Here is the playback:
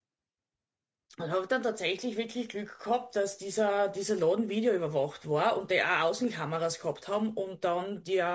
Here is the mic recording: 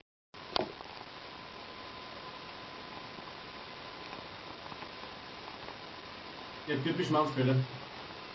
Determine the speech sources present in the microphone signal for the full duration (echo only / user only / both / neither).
user only